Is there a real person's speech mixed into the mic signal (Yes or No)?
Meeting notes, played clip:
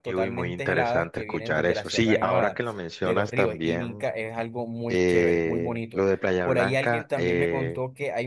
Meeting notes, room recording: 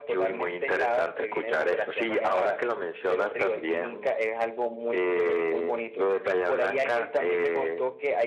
No